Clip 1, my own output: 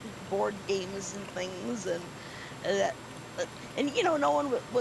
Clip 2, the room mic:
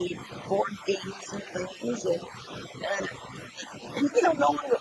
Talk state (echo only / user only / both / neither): echo only